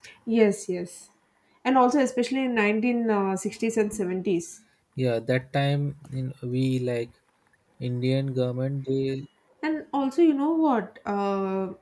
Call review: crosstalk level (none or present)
none